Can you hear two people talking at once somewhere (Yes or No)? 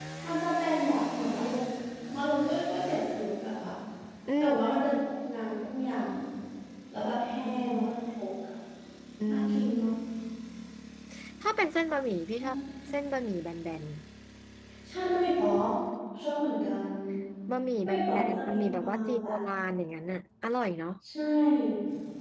Yes